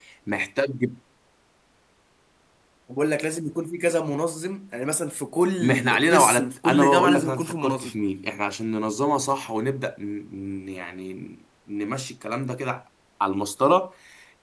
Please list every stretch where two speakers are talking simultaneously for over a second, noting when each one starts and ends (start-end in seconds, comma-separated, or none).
5.6-7.9